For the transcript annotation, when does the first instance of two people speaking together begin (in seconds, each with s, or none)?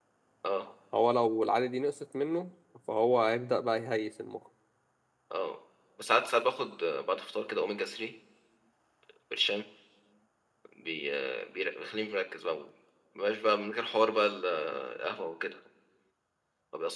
none